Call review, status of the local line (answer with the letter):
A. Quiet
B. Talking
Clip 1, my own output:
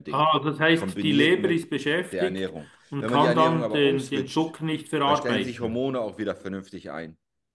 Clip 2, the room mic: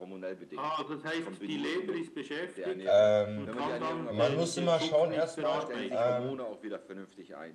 B